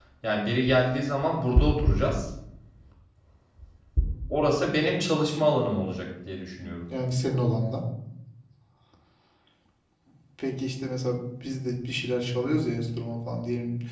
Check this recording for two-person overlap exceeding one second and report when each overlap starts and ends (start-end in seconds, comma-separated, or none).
none